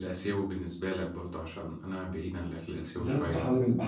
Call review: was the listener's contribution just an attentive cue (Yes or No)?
No